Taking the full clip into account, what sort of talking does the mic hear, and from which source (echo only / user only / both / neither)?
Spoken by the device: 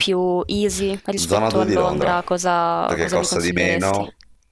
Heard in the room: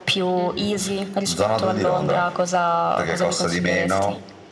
both